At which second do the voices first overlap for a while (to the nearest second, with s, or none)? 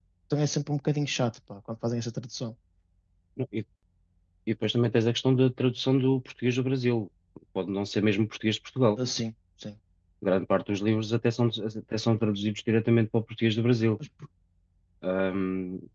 none